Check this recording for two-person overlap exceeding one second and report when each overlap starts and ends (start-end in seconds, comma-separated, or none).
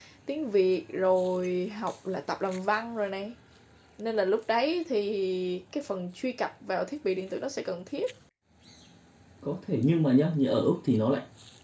none